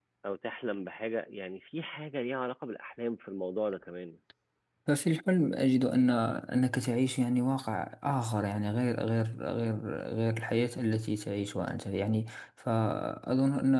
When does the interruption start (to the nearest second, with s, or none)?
none